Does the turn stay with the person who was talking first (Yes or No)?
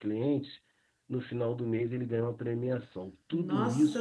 No